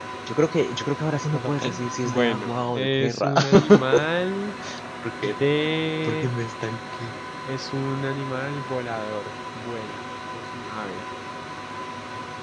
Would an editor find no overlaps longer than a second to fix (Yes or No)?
No